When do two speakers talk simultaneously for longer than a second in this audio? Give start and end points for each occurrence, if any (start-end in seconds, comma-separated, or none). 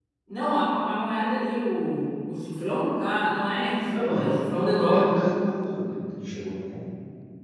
3.9-5.0